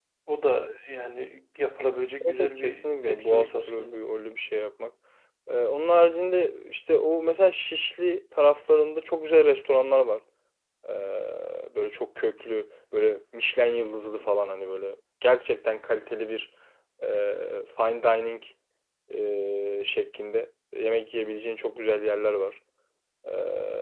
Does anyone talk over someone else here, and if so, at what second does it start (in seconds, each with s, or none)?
2.2 s